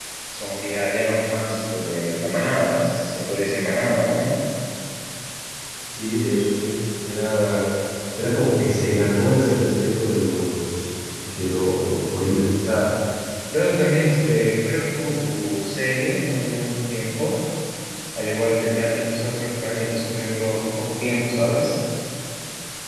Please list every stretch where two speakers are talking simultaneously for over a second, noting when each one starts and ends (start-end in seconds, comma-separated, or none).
none